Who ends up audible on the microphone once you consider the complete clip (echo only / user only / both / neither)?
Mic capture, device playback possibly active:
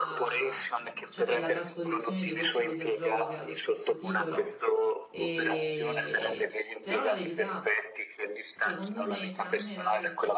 both